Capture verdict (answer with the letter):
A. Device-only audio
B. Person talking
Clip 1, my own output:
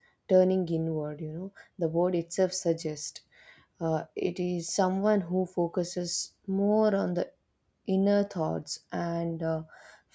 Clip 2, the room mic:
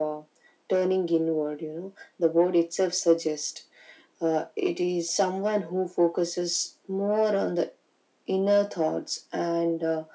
A